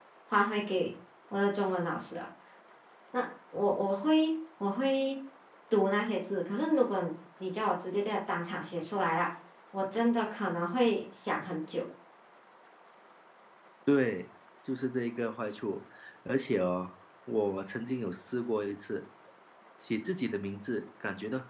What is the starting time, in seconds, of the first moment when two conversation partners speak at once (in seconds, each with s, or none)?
none